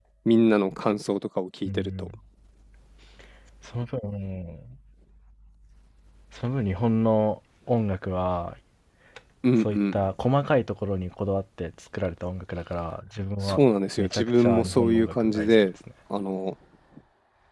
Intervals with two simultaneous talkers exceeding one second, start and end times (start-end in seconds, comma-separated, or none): 14.0-15.7